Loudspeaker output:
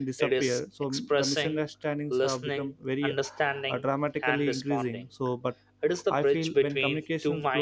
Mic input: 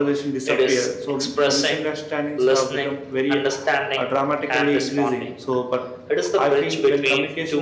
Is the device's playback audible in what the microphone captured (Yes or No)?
Yes